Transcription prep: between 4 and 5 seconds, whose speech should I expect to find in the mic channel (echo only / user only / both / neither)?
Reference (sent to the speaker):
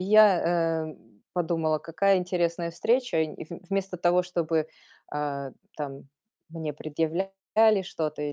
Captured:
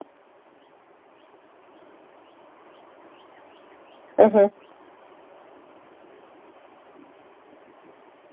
user only